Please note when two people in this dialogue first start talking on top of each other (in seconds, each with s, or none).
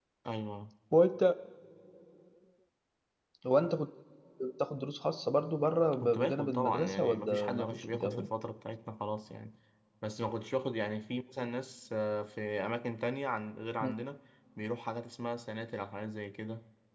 6.0 s